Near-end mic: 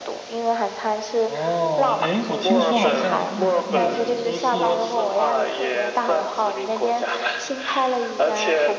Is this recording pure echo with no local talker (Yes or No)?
No